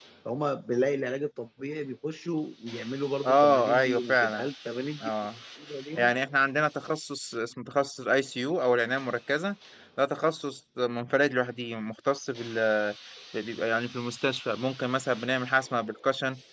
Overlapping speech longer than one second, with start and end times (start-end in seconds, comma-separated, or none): 3.2-4.5